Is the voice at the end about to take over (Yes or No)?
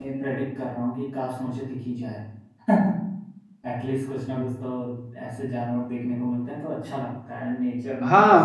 Yes